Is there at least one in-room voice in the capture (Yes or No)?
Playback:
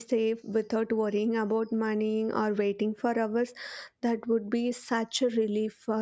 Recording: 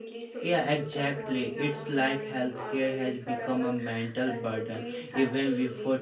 Yes